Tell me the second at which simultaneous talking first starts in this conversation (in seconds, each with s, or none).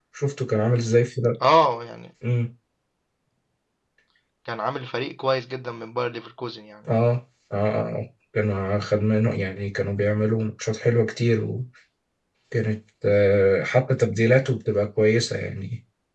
none